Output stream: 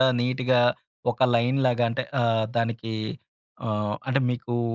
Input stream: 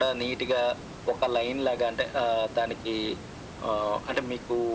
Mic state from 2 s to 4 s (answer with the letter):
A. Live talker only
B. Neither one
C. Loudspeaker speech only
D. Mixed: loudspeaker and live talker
C